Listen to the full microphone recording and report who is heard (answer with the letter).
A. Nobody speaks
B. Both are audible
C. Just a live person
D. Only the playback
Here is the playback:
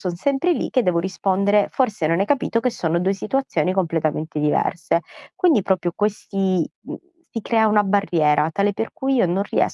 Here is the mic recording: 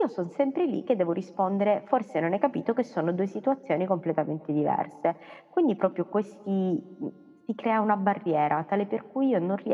D